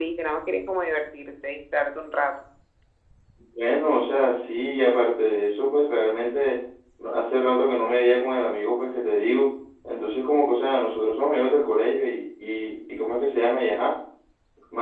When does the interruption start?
none

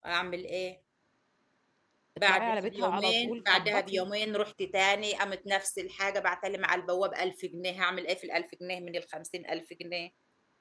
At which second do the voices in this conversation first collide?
2.2 s

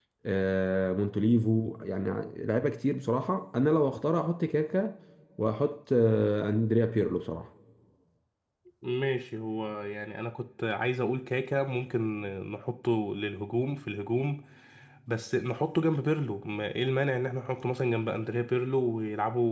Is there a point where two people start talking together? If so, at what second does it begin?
none

